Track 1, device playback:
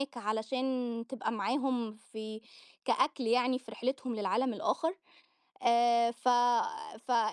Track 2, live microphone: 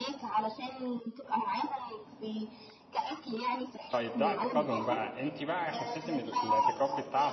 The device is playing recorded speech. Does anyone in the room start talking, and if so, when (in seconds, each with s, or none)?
3.9 s